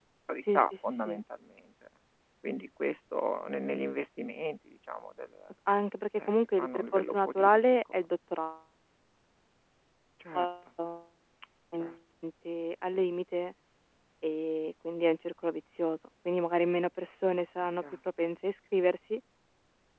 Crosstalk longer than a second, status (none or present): present